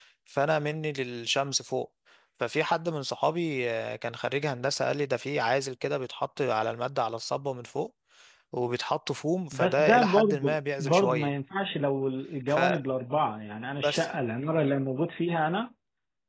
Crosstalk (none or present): present